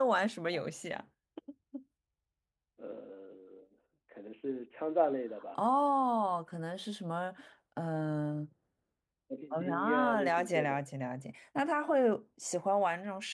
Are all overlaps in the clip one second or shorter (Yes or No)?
No